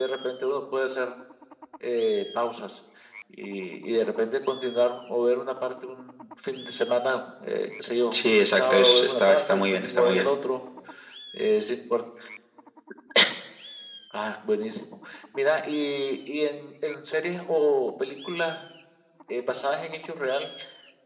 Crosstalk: present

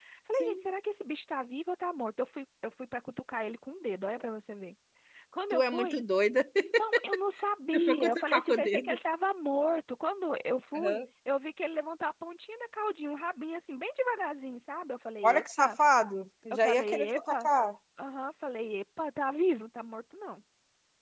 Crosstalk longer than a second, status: present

